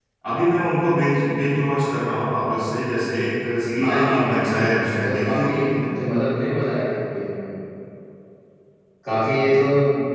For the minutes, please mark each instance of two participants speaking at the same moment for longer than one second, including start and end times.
3.8-5.8

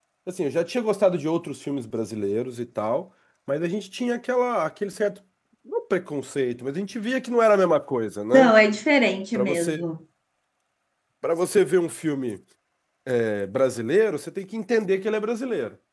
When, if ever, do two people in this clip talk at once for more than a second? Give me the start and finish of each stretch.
none

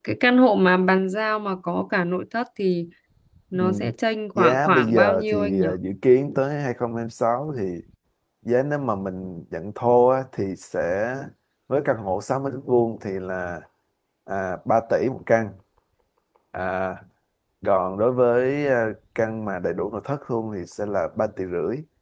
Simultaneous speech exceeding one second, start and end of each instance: 4.3-5.7

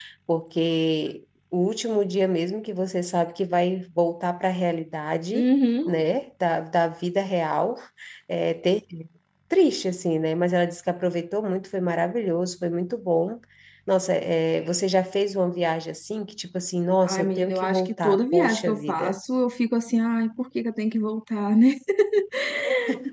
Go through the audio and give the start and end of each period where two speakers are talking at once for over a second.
17.0-19.2

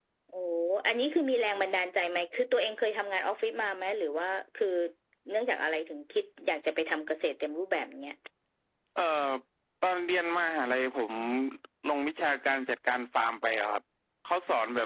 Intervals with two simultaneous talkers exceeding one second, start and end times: none

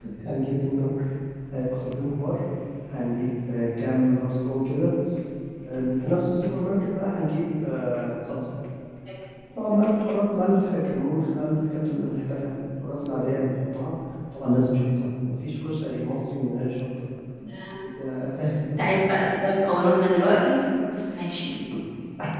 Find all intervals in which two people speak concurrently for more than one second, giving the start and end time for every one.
none

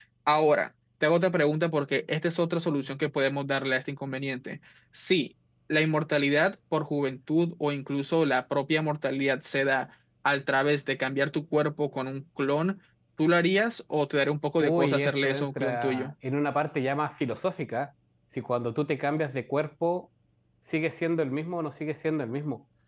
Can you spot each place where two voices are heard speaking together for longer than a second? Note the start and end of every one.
14.6-16.1

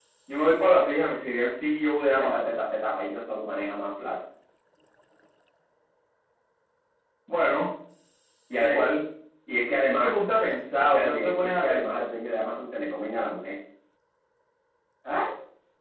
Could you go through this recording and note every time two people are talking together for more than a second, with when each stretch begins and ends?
10.8-12.0

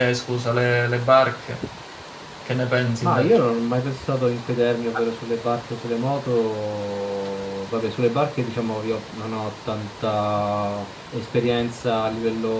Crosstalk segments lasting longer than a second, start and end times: none

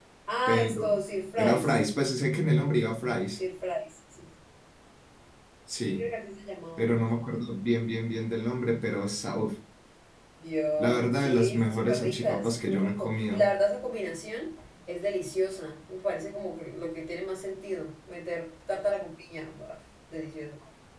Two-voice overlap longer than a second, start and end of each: 10.8-13.4

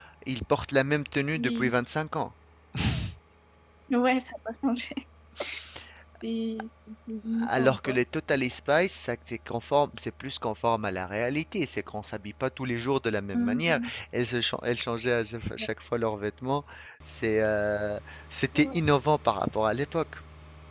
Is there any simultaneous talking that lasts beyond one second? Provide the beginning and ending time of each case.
none

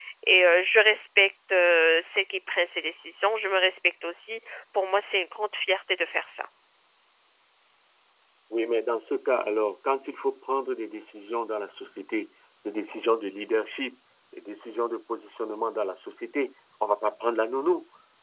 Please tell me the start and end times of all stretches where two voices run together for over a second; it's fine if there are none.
none

